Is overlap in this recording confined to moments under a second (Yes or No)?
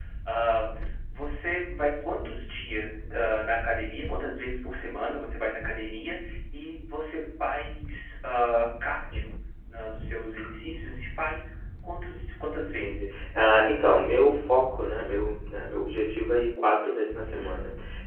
Yes